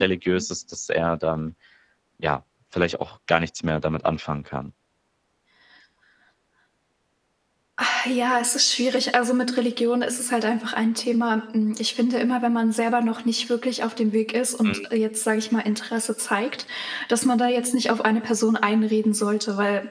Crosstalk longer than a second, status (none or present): none